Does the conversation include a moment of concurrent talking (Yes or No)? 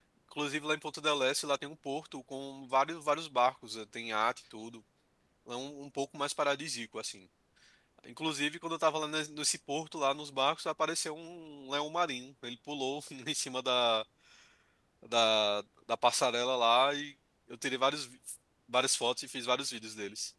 No